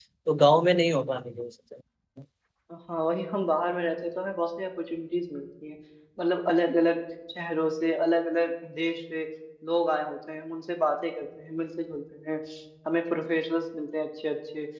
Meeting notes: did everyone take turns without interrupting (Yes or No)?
Yes